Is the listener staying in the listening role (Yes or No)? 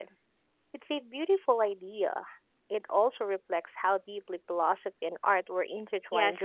No